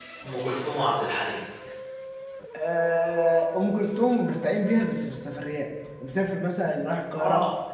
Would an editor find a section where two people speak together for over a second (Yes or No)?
No